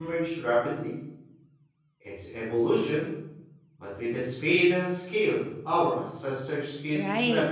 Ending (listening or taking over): taking over